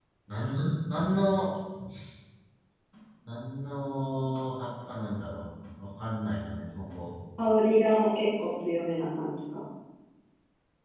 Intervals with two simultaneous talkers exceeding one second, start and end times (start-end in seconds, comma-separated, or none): none